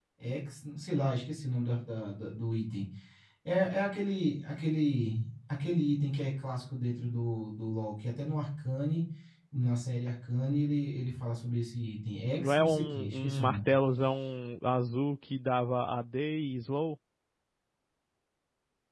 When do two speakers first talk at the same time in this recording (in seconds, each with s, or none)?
12.4 s